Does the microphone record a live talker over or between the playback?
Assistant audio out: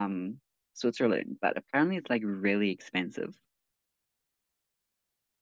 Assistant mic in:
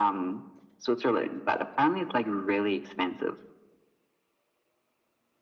No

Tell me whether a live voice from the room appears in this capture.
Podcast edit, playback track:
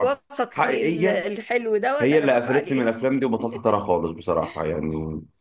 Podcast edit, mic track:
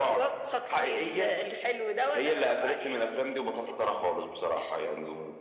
No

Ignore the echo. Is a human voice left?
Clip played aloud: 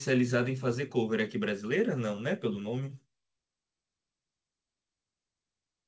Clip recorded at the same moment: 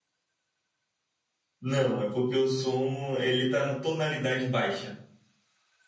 Yes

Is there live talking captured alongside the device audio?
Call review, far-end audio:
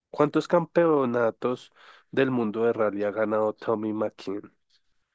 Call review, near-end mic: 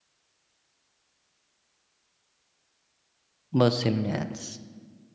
Yes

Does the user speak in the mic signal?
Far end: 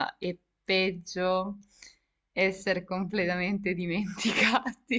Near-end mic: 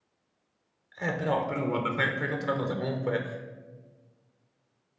Yes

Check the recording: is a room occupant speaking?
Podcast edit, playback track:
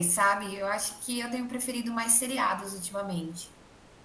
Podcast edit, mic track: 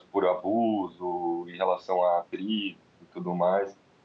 Yes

